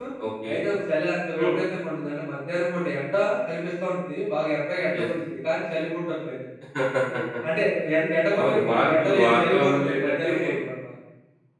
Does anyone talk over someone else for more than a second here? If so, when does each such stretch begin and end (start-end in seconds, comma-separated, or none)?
8.4-10.3